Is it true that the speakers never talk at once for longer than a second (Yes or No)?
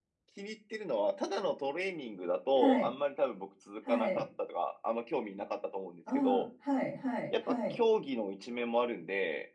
Yes